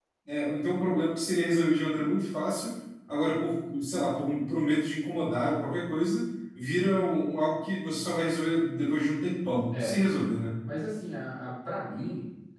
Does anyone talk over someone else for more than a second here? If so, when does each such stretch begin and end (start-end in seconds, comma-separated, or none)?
none